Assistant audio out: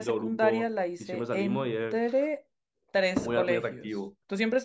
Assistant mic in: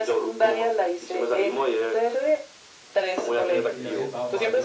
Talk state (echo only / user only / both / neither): both